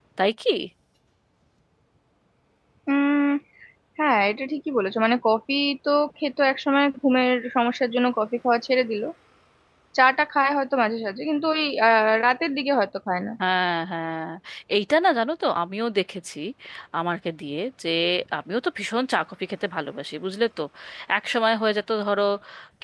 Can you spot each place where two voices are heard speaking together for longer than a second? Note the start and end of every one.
none

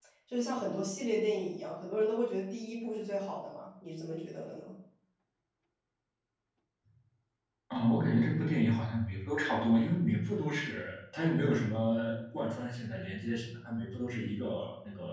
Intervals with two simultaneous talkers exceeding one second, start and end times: none

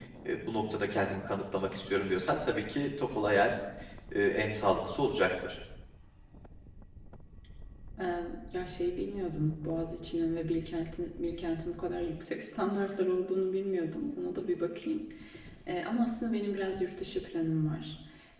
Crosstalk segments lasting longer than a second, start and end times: none

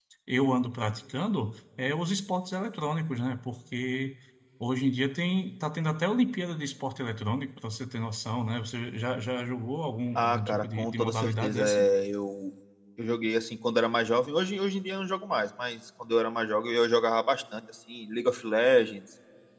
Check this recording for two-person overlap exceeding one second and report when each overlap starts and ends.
10.2-11.8

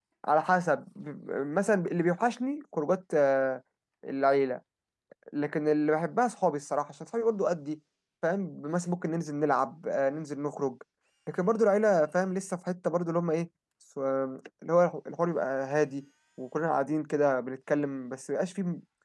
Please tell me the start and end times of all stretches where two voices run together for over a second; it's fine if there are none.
none

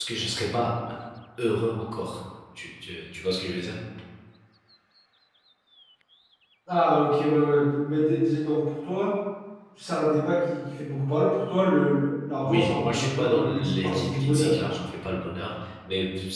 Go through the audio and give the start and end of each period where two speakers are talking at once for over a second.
12.4-14.6

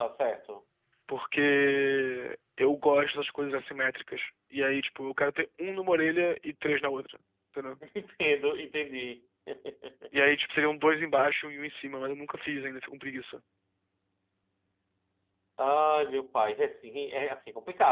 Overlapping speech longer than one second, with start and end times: none

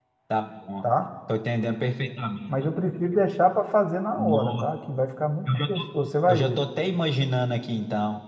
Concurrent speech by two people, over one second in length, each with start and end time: none

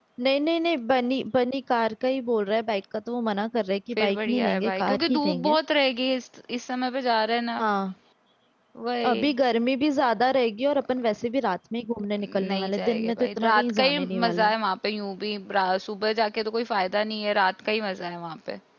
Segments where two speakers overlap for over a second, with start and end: 4.0-5.6, 12.2-14.5

